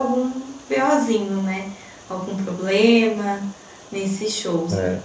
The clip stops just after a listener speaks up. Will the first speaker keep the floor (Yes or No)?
Yes